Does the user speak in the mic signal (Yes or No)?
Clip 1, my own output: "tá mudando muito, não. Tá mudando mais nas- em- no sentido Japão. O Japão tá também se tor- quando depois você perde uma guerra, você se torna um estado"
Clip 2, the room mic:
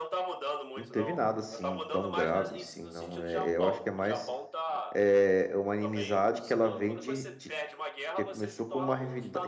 Yes